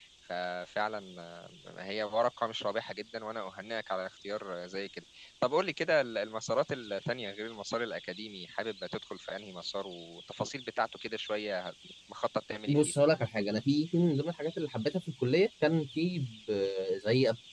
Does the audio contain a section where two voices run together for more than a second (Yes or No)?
No